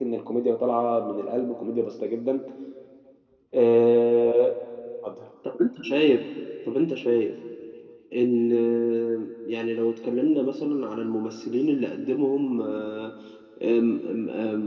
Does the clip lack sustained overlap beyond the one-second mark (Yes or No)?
Yes